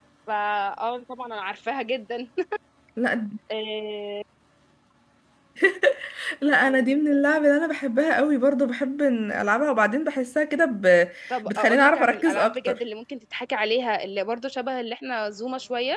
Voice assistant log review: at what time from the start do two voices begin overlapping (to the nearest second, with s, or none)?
11 s